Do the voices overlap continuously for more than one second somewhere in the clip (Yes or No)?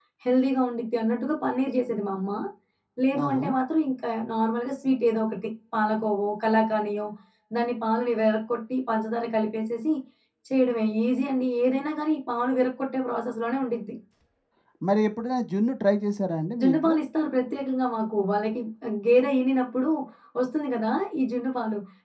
No